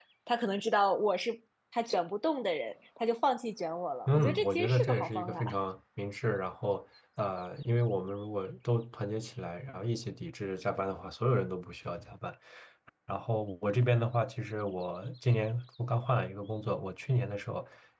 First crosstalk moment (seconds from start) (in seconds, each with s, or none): 4.1 s